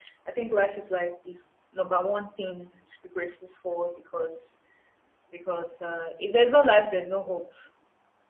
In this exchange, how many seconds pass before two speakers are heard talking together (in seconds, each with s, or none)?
none